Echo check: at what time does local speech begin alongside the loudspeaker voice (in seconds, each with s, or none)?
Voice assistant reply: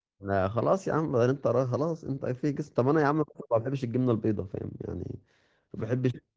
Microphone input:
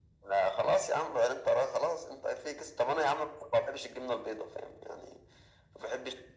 none